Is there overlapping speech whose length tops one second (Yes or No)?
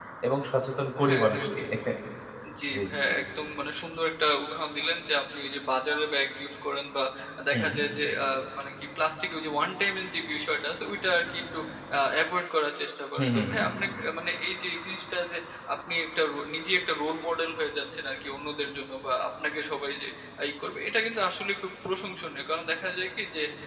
No